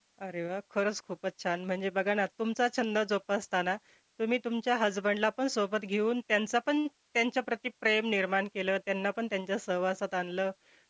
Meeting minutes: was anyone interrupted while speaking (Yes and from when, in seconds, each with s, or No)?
No